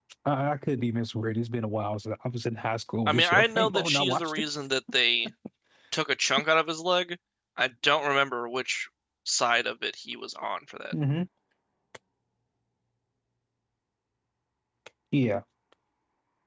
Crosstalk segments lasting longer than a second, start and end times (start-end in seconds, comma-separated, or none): 3.1-4.4